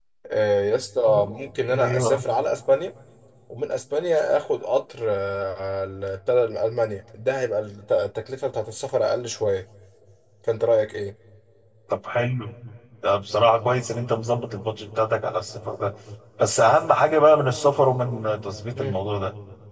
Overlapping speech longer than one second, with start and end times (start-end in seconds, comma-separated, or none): none